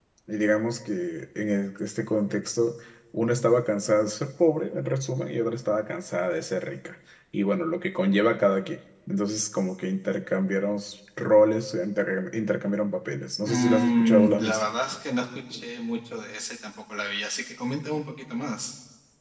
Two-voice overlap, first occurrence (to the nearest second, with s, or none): 13 s